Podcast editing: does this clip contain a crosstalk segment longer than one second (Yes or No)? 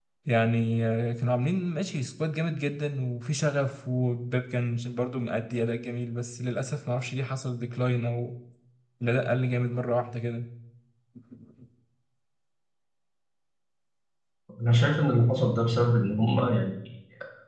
No